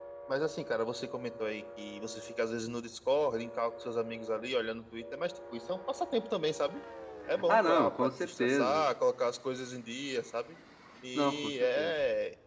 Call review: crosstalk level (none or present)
present